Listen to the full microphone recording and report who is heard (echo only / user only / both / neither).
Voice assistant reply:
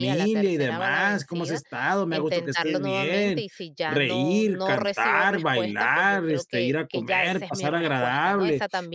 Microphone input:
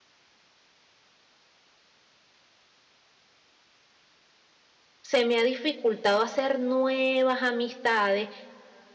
user only